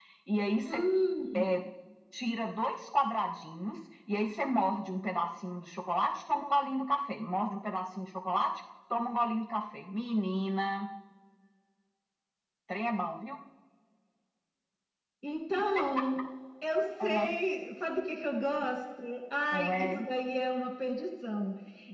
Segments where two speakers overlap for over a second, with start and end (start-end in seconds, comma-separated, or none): none